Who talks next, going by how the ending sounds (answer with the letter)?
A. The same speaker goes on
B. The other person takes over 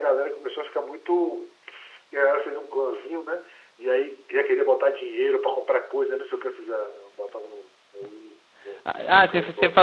B